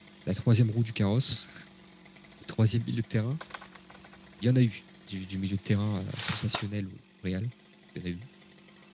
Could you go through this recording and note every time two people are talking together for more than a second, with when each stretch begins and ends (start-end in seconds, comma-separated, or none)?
none